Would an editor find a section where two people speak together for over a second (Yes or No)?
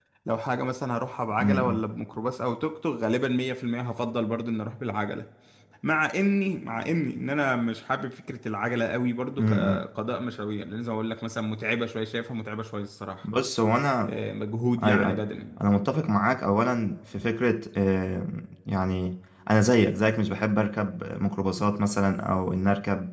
No